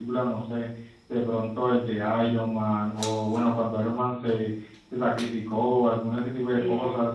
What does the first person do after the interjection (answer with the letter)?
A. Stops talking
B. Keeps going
B